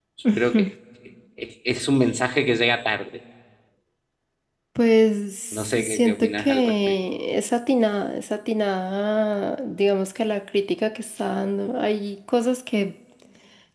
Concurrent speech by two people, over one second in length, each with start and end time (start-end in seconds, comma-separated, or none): 5.5-7.0